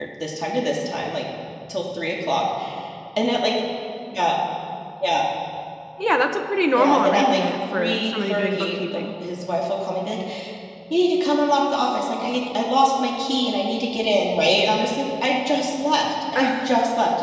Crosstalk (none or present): present